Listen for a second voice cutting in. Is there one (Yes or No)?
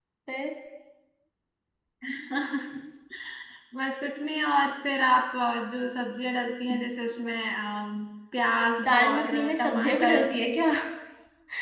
Yes